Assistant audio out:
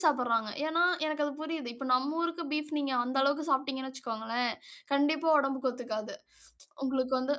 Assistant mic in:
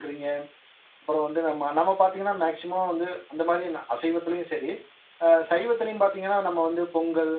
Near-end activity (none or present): present